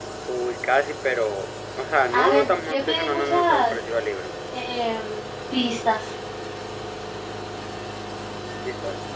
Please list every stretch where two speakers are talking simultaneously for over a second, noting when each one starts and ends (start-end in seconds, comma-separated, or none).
2.1-3.8